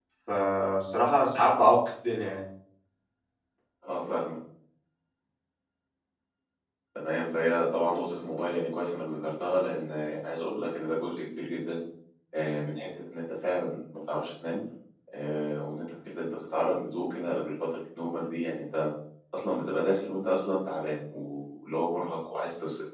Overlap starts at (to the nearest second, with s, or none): none